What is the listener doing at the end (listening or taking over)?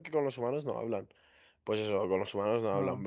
listening